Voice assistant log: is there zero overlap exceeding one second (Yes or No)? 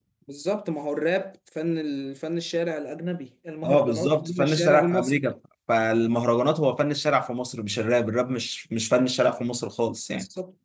No